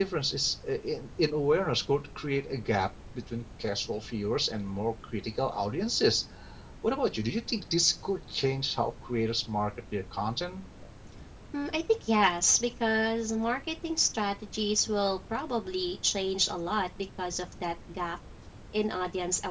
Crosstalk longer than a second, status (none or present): none